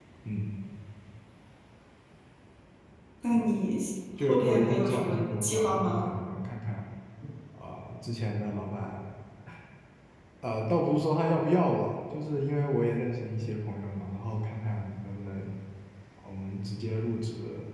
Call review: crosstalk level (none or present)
present